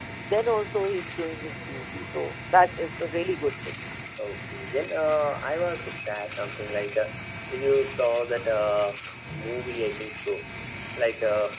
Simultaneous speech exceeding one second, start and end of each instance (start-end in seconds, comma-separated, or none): none